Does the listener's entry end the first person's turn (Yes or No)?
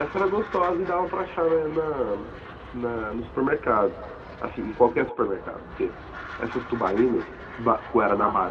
No